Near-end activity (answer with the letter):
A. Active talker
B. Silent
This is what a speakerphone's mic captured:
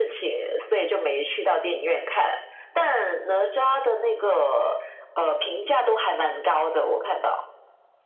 B